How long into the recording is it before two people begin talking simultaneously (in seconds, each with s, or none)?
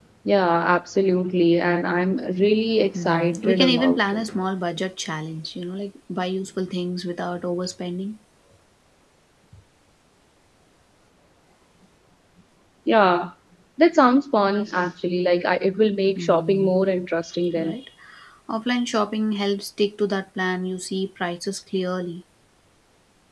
2.9 s